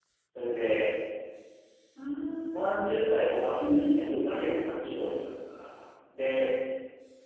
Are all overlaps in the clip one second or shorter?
No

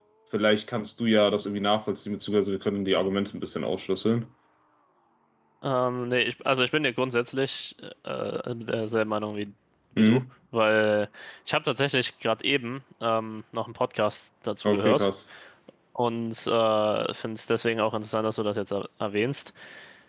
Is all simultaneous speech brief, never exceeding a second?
Yes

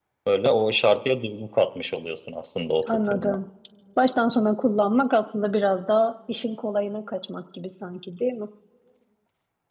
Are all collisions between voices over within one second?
Yes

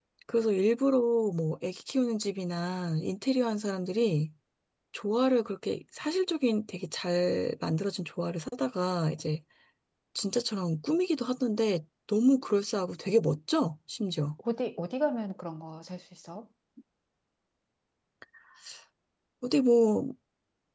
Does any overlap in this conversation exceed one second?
No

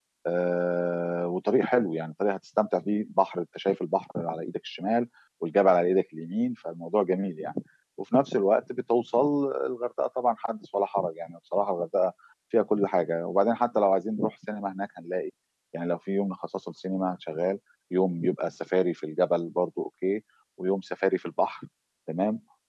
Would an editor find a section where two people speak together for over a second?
No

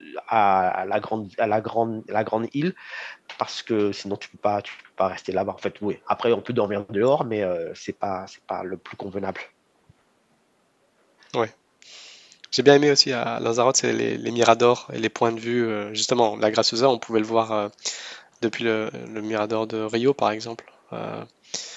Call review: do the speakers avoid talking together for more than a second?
Yes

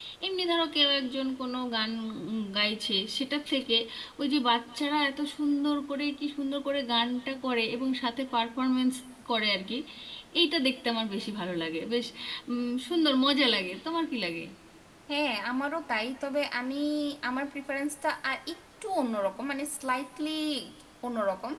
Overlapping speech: No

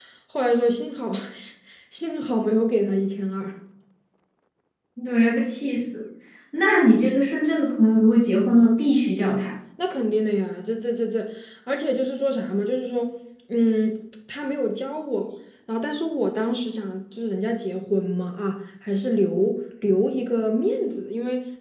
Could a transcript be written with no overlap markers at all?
Yes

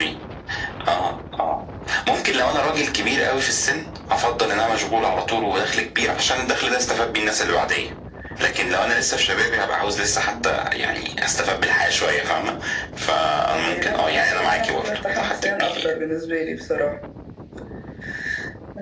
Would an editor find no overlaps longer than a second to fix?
No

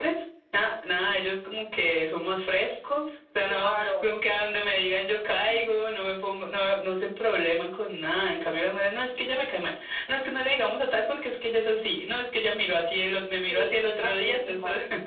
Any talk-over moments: Yes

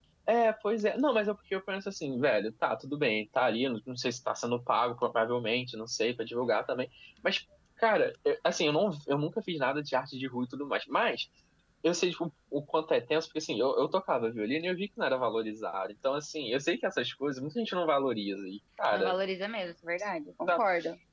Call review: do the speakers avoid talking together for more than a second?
Yes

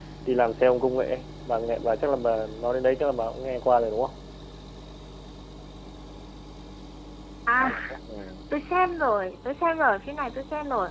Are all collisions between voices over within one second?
Yes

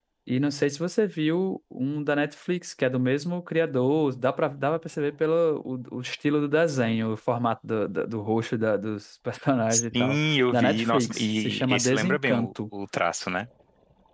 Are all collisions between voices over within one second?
No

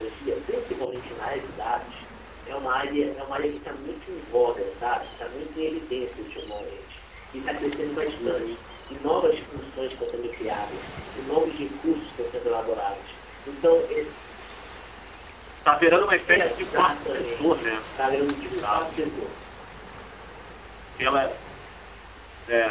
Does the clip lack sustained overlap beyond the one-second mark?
No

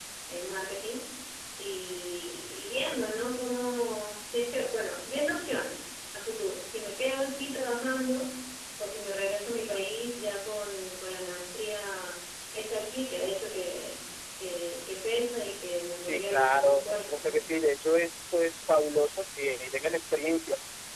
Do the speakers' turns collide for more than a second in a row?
Yes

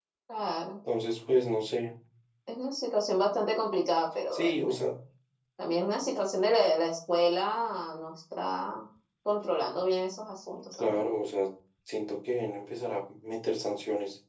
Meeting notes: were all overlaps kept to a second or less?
Yes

